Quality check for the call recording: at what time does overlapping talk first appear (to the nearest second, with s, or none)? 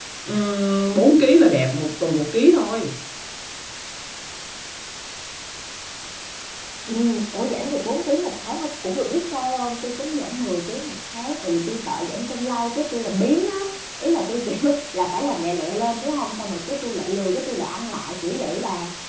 none